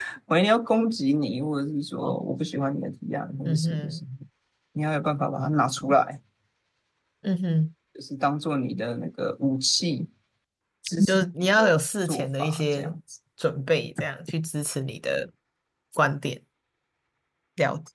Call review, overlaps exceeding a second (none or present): present